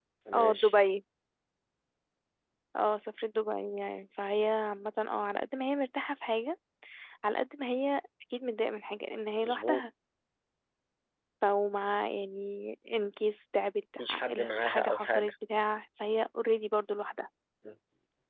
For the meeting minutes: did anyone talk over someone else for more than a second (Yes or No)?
Yes